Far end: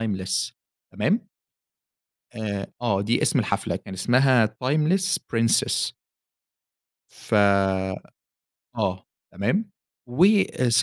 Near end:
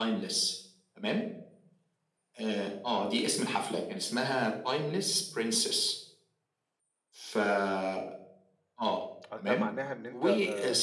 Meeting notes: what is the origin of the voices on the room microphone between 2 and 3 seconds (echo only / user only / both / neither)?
echo only